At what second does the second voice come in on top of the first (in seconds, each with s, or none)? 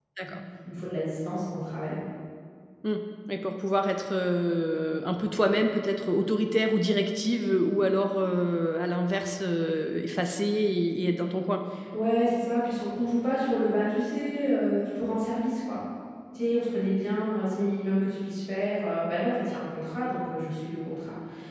none